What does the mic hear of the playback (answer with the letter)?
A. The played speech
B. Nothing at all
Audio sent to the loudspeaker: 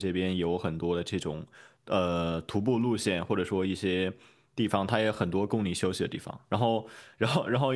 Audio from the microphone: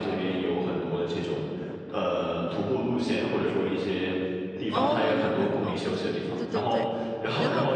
A